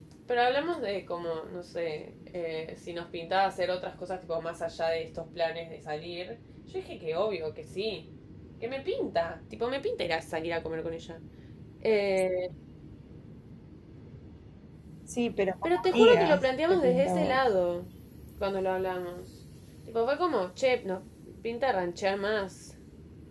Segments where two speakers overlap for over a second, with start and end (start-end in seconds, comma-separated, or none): 15.8-17.4